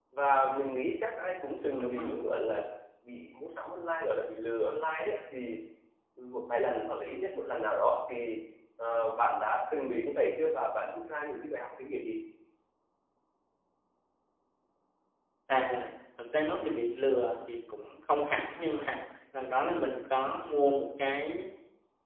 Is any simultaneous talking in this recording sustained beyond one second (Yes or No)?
No